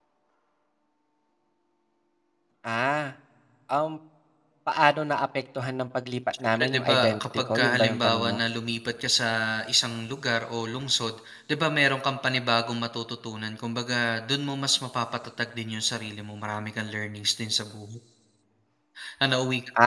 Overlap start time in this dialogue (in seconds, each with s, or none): 6.5 s